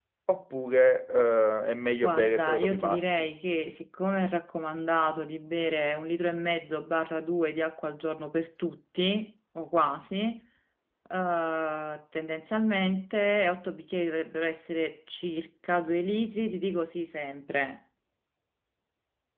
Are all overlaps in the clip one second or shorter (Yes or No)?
No